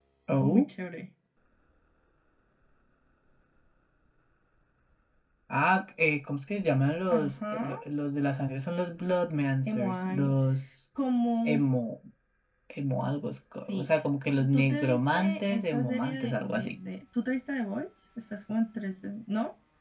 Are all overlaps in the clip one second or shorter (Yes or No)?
No